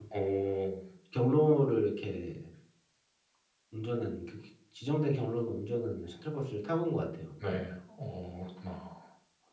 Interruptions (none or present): none